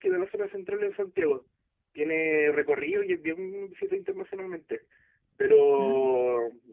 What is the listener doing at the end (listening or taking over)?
listening